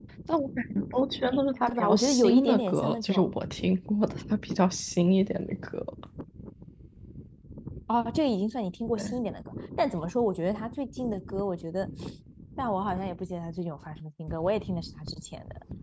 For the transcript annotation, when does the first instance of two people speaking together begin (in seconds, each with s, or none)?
1.7 s